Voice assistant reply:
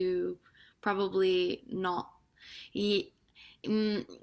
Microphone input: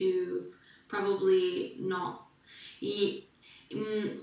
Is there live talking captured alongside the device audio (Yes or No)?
No